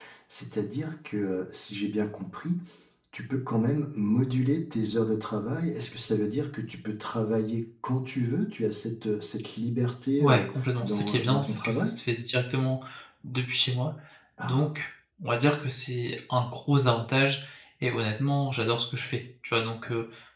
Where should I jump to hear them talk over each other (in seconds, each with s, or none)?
10.2 s